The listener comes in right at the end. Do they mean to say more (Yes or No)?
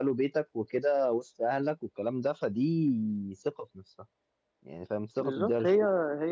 Yes